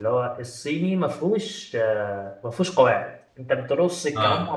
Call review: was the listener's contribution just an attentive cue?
Yes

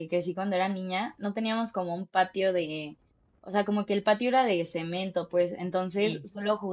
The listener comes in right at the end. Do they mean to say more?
No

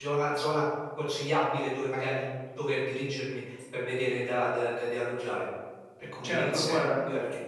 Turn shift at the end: Yes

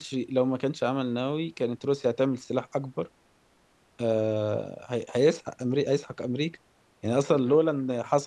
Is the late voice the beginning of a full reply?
No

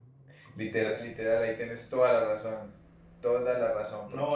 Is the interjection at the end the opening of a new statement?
Yes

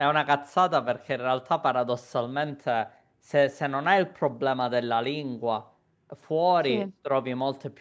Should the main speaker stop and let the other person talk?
No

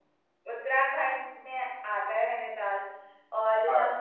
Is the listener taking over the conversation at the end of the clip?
No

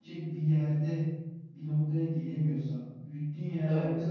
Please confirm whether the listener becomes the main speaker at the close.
No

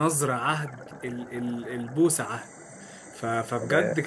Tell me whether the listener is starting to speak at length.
No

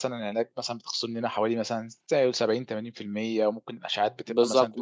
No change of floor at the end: No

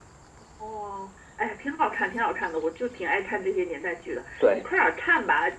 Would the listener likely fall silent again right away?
Yes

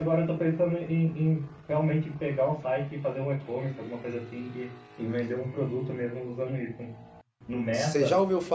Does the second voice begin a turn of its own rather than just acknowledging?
Yes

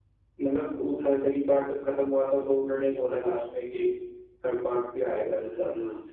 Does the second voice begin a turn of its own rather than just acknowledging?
Yes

